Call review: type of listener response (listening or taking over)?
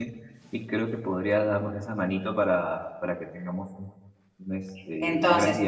taking over